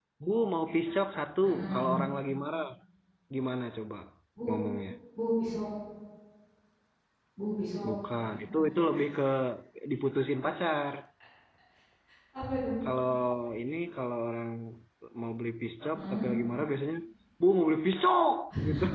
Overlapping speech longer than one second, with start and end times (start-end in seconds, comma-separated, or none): none